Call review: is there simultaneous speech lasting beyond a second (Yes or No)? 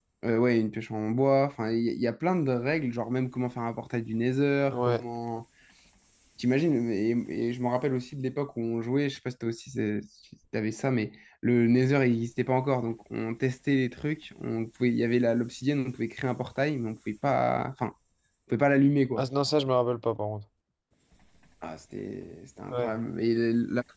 No